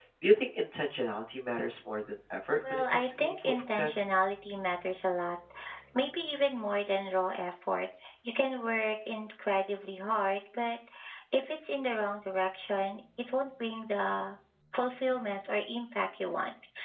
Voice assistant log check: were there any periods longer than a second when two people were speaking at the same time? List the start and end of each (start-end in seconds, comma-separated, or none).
2.7-4.0